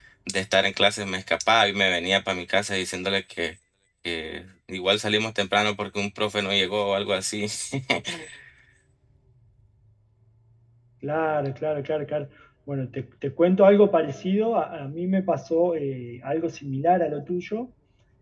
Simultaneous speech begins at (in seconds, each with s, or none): none